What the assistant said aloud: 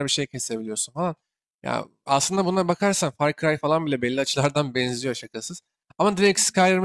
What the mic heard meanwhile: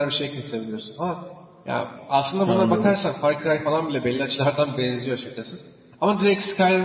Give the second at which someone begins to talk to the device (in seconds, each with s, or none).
2.5 s